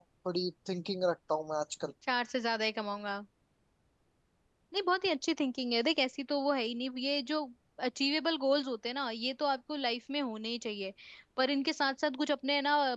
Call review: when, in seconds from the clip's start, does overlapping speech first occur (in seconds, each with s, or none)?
none